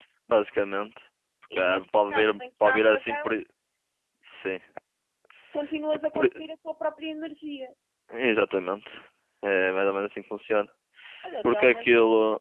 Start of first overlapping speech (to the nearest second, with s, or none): 2 s